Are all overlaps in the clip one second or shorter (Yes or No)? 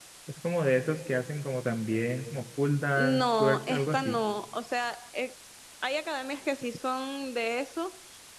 No